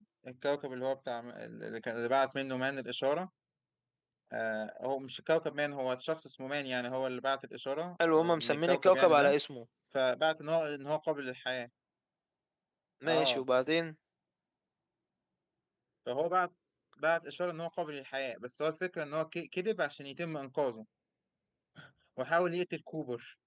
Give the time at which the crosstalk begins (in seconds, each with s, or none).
8.1 s